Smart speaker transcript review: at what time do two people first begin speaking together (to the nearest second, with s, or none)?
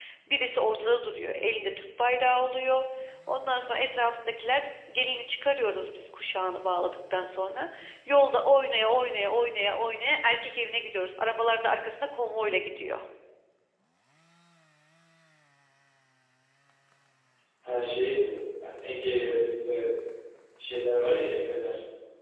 none